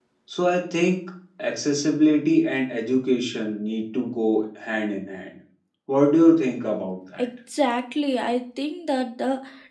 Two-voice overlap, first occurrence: none

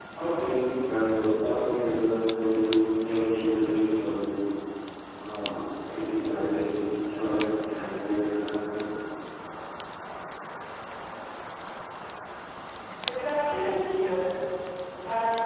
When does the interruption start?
none

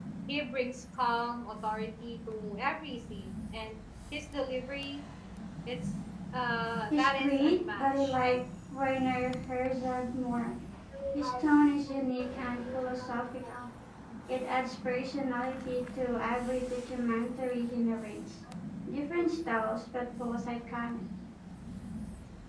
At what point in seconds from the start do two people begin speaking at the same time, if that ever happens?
6.9 s

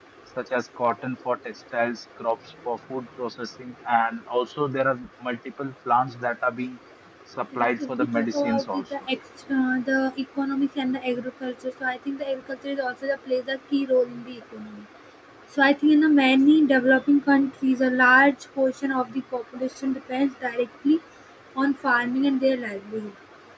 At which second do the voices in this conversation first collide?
7.5 s

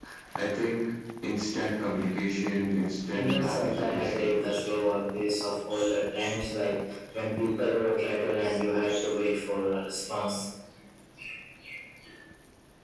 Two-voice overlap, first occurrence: 3.1 s

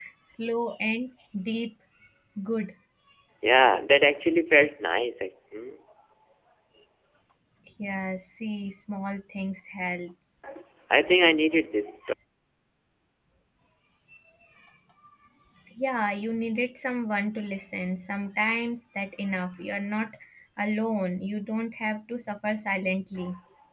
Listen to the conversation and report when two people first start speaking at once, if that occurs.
none

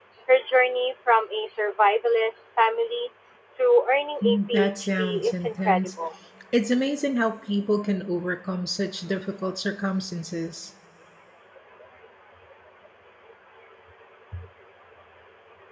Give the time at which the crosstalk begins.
4.2 s

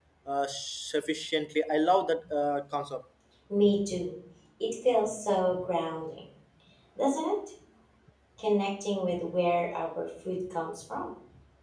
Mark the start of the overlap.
none

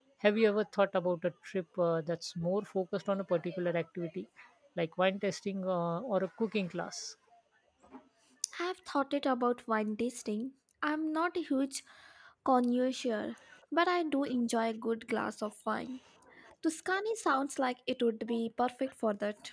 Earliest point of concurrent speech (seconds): none

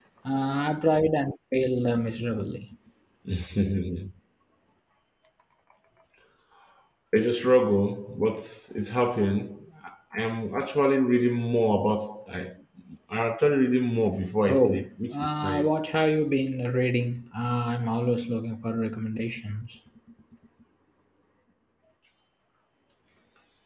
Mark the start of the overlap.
14.5 s

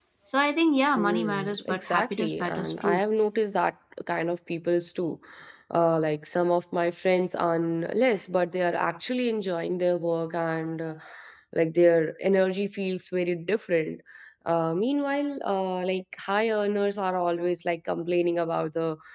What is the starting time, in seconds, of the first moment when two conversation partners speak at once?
1.0 s

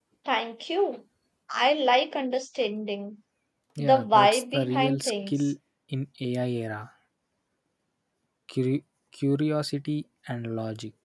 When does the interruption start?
3.8 s

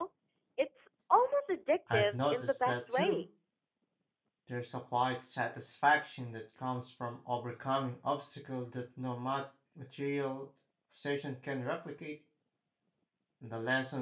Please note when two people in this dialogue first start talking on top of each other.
1.9 s

